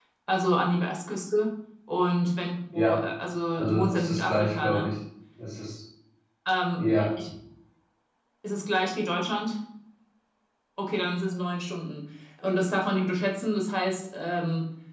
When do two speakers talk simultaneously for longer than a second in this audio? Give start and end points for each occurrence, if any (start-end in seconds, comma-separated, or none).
3.5-4.9